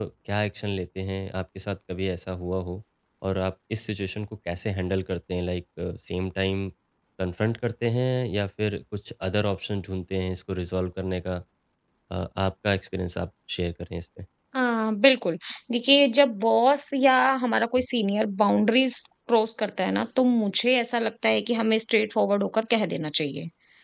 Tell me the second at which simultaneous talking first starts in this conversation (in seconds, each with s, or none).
none